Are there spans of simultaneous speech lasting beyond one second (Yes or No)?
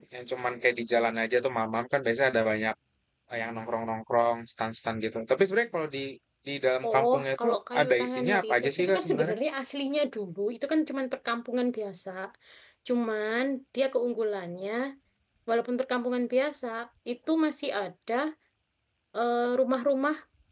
Yes